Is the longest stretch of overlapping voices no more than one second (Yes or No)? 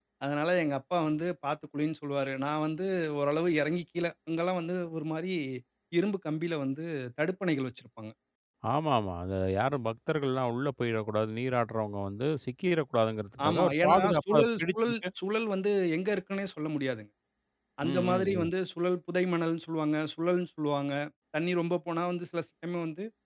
No